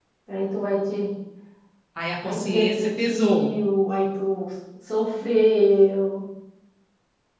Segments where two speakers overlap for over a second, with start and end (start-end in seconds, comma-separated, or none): 2.2-3.5